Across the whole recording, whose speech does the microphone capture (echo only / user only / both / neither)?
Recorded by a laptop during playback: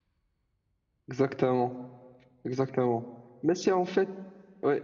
user only